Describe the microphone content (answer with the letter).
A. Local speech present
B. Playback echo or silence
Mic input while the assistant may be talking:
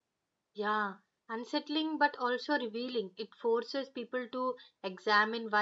A